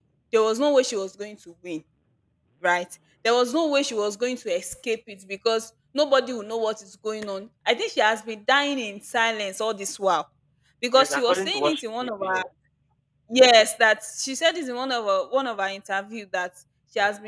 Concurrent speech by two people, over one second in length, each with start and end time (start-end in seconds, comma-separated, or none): 10.9-12.4